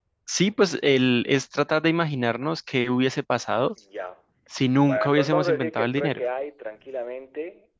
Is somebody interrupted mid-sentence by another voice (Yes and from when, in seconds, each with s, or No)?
Yes, from 4.9 s